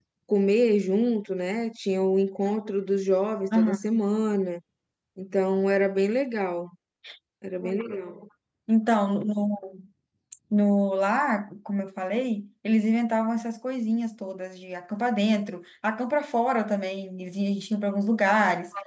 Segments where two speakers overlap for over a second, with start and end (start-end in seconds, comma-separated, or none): none